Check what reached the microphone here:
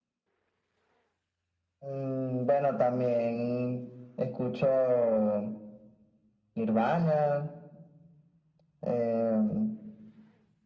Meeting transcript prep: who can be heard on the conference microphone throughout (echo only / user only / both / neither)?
echo only